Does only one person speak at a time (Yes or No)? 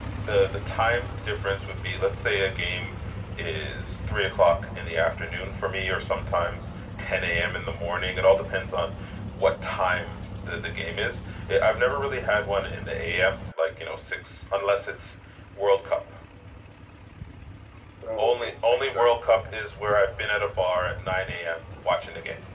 No